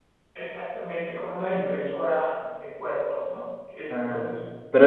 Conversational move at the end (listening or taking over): taking over